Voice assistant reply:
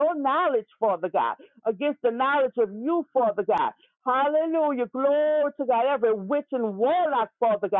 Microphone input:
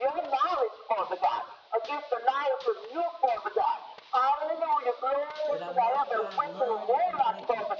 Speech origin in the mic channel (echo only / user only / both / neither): both